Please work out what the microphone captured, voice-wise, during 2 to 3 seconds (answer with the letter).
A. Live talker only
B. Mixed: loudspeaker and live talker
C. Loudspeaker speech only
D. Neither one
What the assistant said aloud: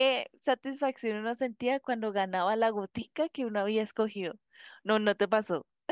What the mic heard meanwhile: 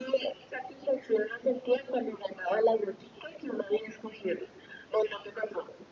C